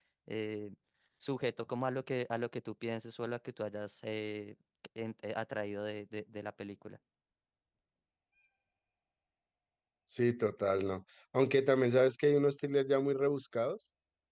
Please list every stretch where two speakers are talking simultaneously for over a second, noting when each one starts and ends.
none

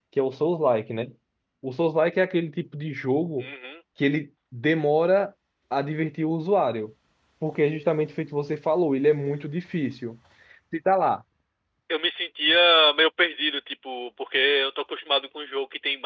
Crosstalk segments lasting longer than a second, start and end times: none

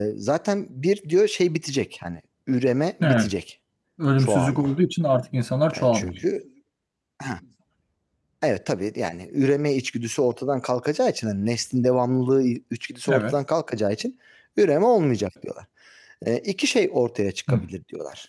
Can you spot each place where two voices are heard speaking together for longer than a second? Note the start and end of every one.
none

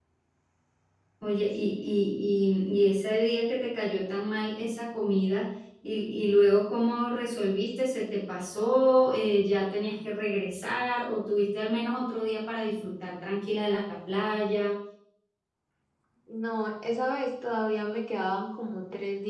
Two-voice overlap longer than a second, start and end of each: none

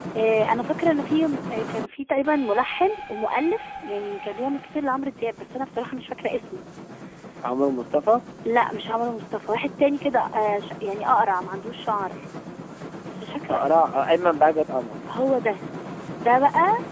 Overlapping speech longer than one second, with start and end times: none

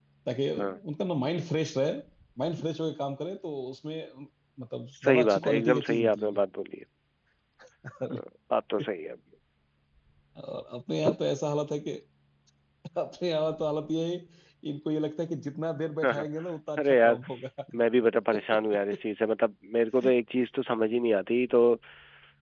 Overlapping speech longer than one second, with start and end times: 4.9-6.4

